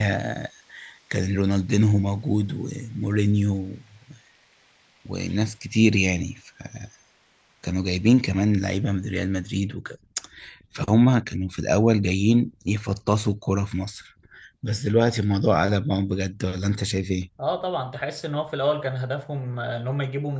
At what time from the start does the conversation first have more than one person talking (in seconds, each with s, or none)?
none